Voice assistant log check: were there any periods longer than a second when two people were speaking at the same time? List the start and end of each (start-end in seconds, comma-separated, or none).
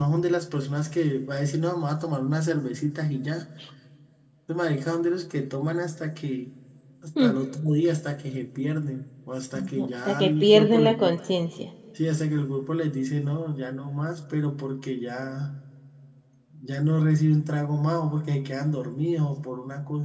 9.6-10.9